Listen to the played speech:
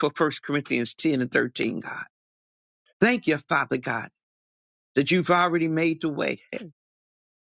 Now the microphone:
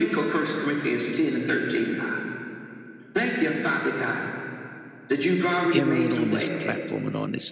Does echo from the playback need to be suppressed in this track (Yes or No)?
Yes